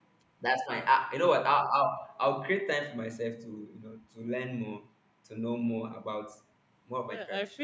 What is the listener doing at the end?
taking over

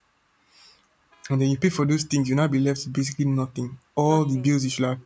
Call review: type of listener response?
listening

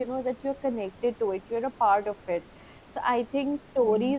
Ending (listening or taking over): listening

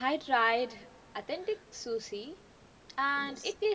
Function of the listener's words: listening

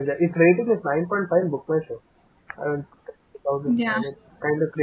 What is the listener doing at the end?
listening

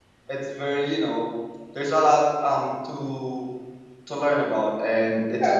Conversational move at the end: taking over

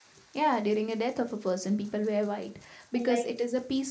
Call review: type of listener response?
listening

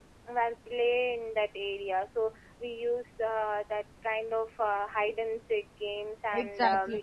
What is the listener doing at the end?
taking over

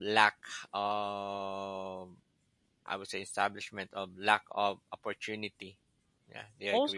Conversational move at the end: taking over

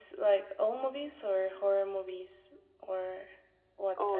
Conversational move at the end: taking over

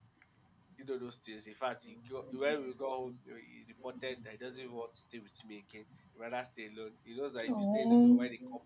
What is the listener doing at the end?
listening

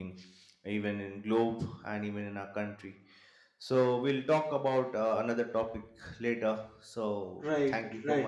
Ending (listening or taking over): taking over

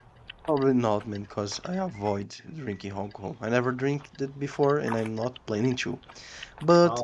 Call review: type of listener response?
listening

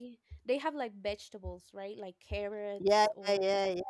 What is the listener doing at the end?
taking over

